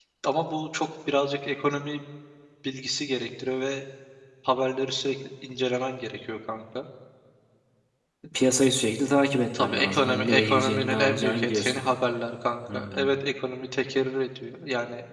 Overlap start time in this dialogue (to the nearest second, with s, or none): 10 s